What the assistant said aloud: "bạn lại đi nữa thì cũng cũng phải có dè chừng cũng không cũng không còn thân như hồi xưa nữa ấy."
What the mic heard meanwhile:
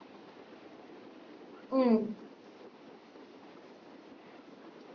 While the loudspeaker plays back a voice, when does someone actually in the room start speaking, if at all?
1.7 s

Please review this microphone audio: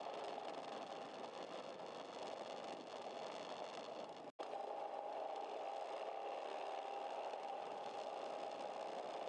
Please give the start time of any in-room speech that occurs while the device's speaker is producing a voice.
none

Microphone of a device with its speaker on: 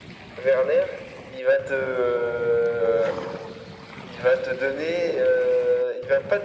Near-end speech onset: none

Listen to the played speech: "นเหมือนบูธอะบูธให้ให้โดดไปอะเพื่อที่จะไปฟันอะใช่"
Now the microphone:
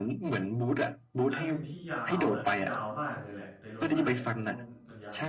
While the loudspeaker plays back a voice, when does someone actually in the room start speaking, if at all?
1.3 s

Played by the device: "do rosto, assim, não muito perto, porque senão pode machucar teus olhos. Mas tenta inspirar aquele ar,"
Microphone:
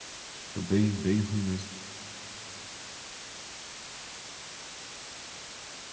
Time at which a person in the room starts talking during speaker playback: 0.5 s

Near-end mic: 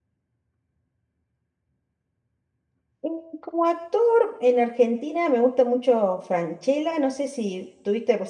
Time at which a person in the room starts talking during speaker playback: 3.0 s

